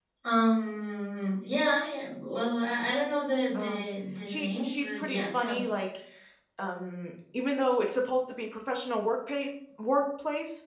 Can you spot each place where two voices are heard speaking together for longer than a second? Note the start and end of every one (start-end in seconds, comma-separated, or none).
4.3-5.7